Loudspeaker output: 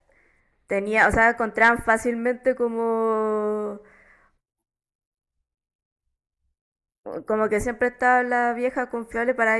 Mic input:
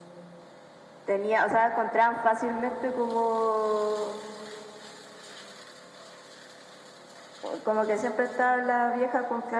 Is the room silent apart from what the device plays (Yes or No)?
Yes